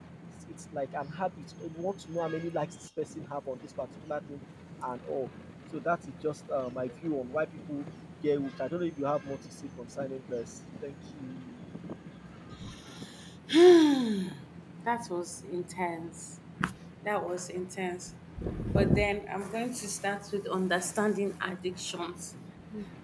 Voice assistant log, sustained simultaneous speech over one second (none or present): none